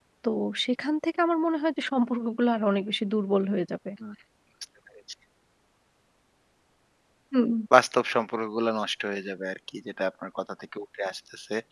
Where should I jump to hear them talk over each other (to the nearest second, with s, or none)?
none